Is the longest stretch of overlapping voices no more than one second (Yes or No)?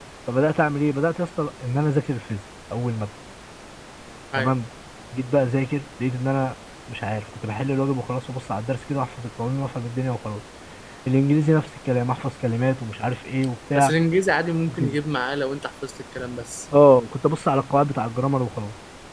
Yes